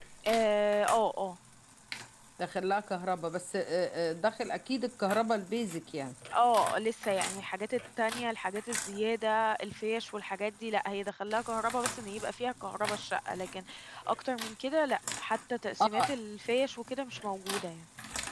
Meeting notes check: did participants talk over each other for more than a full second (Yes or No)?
No